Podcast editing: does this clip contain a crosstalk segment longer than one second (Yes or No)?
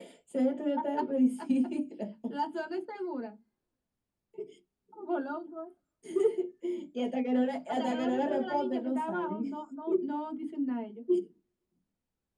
Yes